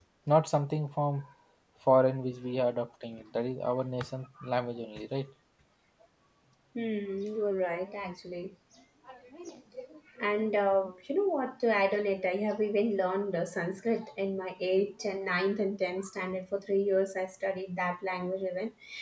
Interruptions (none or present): none